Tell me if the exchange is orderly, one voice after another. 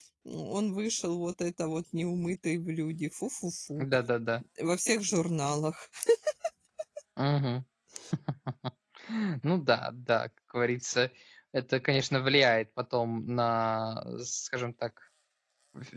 Yes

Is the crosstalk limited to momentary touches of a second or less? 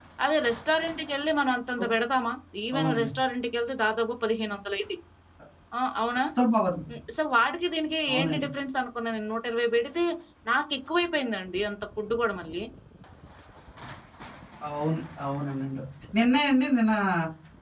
Yes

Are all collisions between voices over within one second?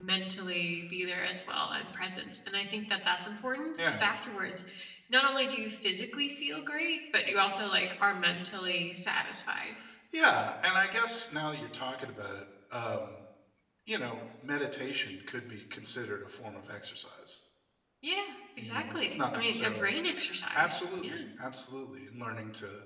No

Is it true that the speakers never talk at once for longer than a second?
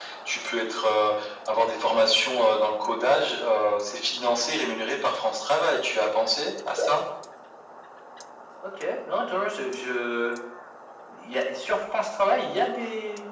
Yes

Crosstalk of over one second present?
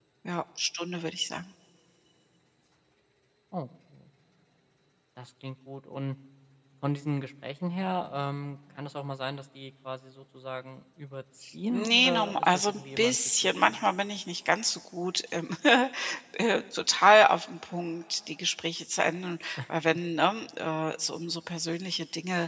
Yes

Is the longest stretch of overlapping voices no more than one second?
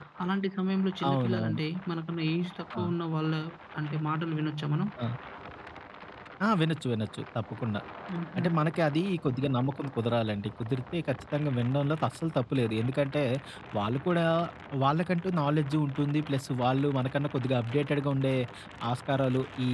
Yes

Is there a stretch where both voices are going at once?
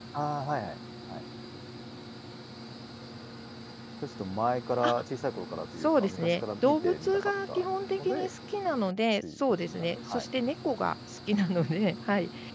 Yes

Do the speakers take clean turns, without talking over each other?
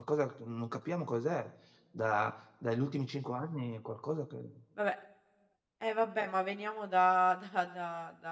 Yes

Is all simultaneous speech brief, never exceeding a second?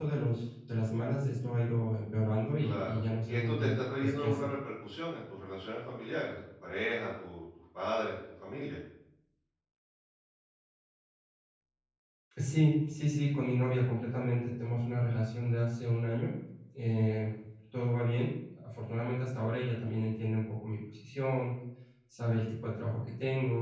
No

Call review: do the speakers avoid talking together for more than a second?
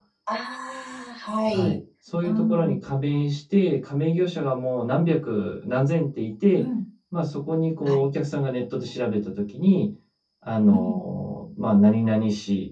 Yes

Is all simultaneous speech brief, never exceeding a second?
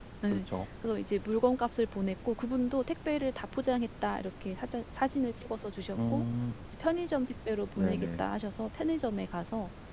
Yes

